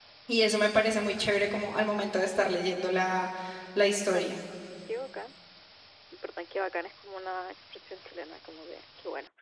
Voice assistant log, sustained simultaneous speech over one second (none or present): none